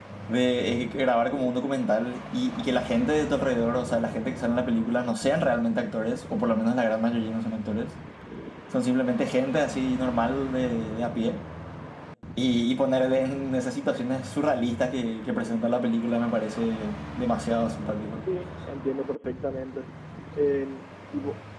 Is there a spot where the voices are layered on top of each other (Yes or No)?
No